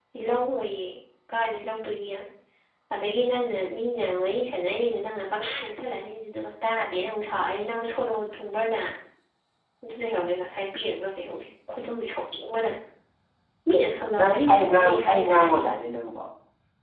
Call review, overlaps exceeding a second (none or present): present